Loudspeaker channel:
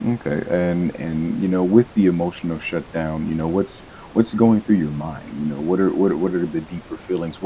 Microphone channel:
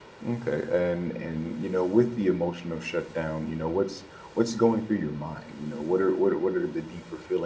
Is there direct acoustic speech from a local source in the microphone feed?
No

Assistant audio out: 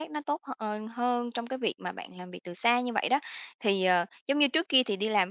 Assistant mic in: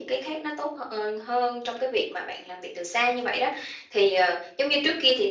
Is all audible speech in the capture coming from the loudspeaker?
Yes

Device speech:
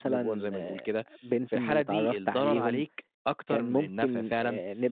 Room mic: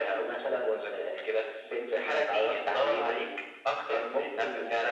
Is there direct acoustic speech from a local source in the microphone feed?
No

